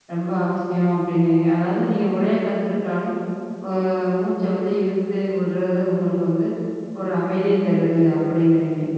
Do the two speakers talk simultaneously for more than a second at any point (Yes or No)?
No